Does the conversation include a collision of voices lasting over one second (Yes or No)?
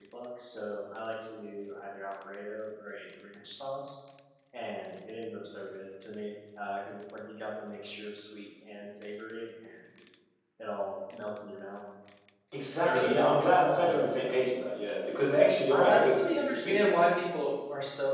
Yes